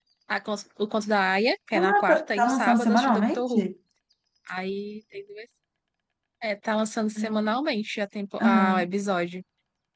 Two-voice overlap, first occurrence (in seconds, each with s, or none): 1.7 s